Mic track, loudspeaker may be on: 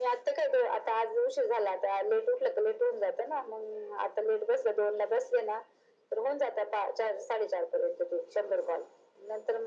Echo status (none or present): present